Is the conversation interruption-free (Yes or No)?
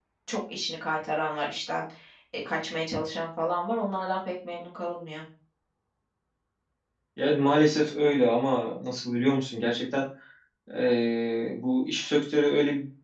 Yes